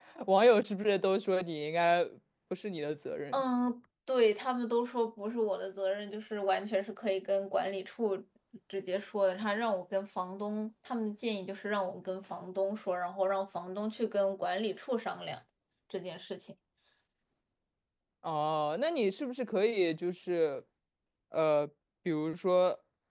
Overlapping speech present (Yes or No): No